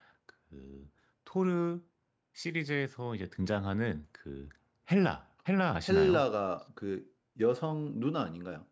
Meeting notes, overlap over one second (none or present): none